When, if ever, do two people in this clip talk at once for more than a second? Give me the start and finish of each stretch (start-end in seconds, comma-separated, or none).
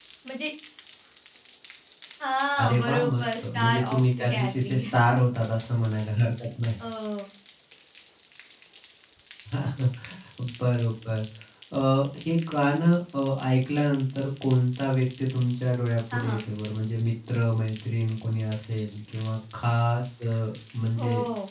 2.6-4.8